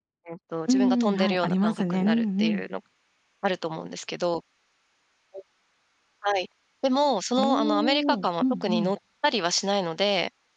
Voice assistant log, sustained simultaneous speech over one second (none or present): present